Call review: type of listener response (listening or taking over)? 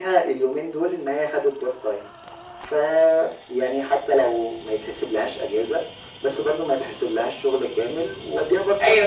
listening